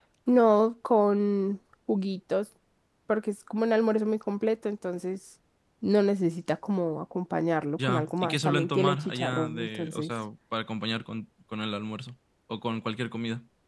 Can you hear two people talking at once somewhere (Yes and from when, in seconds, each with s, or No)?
Yes, from 7.8 s